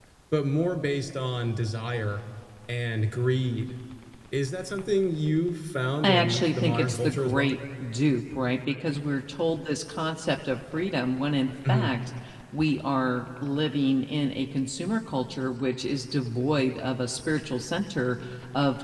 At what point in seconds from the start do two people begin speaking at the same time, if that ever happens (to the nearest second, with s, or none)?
6 s